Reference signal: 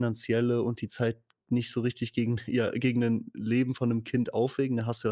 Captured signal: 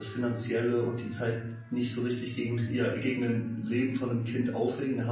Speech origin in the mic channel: echo only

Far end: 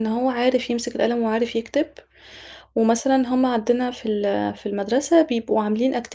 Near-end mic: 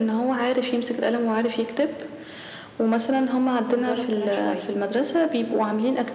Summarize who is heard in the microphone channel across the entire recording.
both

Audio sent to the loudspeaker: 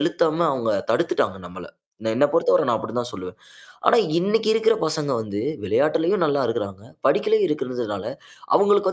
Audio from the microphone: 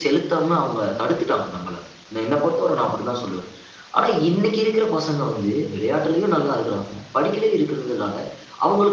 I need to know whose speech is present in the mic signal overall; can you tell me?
echo only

